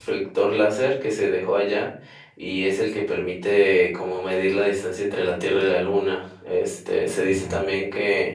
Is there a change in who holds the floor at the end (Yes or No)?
No